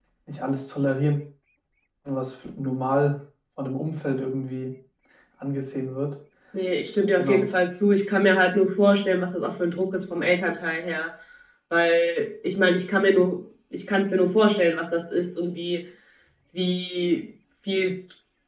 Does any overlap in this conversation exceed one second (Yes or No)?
No